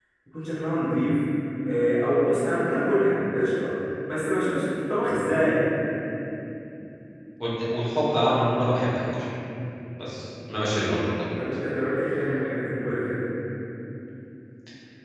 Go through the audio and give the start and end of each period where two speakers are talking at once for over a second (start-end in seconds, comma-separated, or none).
none